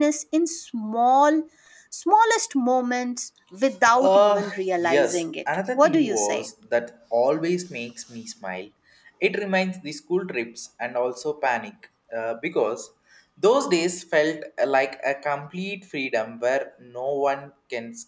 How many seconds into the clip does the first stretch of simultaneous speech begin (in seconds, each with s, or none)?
3.9 s